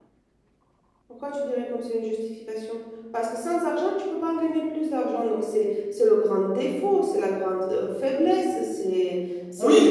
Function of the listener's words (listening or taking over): taking over